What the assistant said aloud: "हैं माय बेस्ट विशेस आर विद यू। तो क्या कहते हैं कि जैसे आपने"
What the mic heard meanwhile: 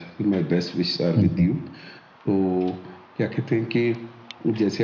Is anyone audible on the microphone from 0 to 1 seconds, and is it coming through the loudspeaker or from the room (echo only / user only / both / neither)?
echo only